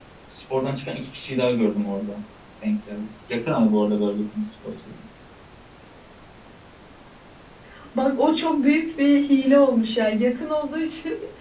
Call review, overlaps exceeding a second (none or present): none